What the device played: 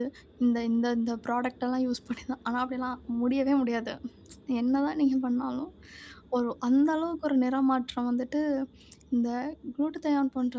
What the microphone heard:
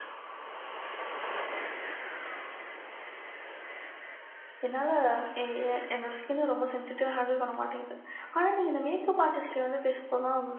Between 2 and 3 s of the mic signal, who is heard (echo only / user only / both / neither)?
neither